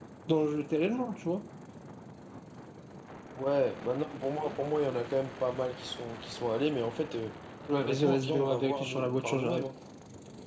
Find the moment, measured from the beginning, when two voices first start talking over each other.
7.8 s

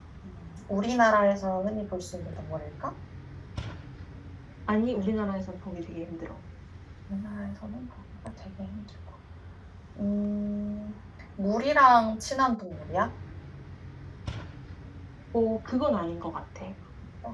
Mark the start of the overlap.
none

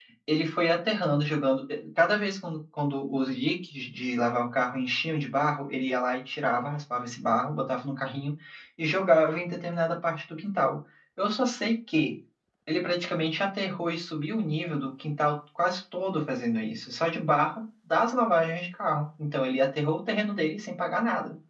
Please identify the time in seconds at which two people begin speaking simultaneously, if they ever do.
none

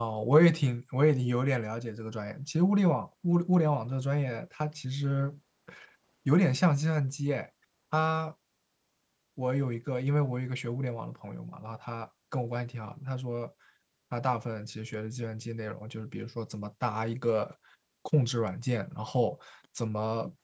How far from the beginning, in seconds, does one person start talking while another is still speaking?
none

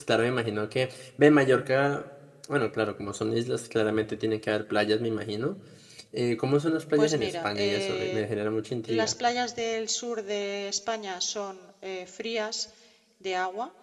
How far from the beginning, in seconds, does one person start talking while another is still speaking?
7.0 s

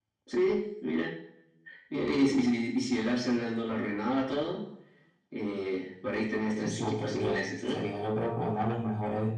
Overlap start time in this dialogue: 6.6 s

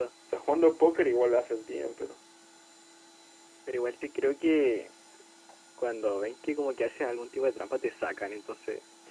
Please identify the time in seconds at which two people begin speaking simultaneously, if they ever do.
none

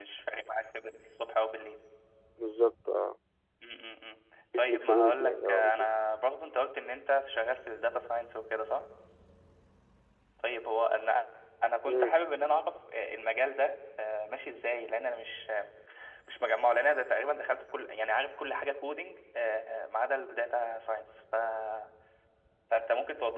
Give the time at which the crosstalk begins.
4.5 s

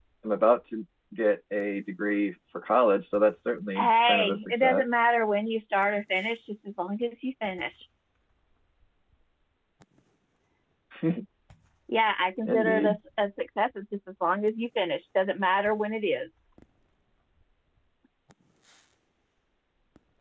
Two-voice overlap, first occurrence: 3.8 s

